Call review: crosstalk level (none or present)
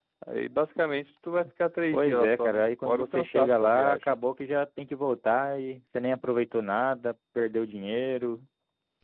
present